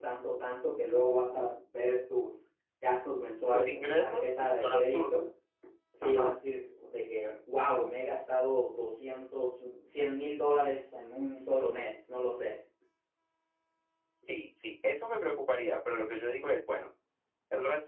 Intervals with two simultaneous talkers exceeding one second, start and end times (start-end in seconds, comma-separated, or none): 3.5-5.3